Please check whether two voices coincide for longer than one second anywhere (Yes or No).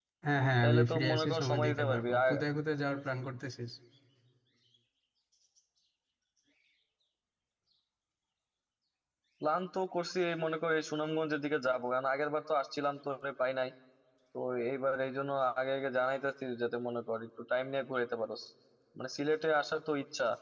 Yes